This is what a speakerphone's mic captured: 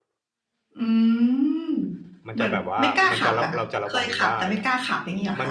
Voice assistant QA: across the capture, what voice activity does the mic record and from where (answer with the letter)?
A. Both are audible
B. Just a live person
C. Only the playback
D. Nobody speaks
A